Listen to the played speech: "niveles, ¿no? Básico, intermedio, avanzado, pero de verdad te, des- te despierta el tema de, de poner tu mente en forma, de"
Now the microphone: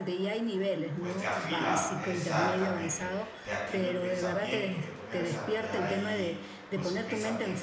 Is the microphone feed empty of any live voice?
No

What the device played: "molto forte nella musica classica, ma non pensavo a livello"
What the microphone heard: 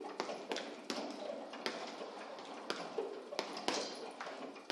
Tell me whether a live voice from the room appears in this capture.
No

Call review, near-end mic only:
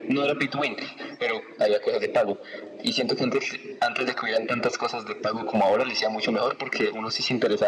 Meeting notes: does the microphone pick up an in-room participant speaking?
No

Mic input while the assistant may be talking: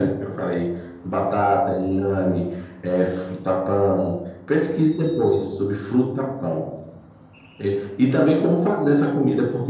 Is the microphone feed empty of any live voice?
Yes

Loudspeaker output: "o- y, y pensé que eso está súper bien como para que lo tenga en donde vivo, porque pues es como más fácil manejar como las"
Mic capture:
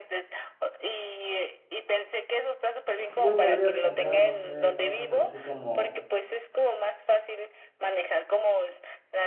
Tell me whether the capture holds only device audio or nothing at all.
No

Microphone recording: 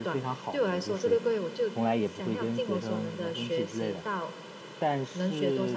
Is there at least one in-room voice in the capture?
Yes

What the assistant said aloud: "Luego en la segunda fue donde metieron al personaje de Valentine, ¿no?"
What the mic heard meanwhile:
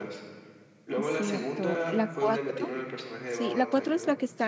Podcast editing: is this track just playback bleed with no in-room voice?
No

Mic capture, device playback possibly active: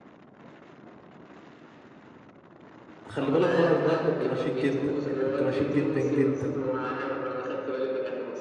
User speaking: Yes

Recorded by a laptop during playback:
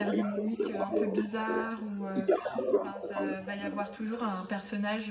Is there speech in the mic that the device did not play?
Yes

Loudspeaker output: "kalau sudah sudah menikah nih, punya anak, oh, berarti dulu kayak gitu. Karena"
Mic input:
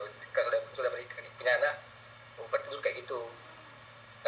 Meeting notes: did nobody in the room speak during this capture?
Yes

